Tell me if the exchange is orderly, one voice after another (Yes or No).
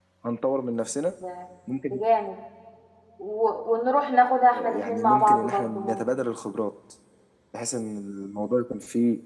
No